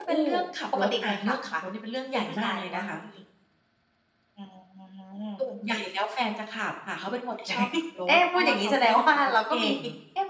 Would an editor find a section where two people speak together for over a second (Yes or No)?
Yes